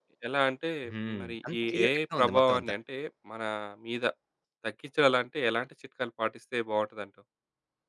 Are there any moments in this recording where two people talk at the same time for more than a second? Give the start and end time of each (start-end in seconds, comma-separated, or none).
1.2-2.7